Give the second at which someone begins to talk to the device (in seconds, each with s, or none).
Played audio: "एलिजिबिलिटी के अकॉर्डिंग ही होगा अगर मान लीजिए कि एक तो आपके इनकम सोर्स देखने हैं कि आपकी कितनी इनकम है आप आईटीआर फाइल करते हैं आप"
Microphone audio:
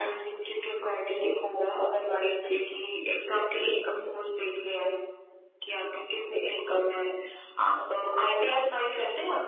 none